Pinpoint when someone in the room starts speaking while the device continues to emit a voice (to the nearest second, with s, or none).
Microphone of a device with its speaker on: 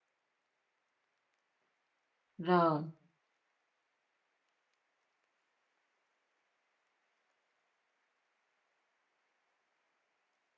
2 s